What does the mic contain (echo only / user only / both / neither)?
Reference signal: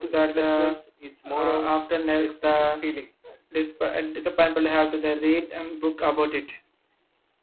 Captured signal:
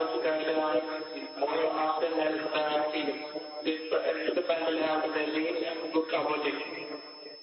echo only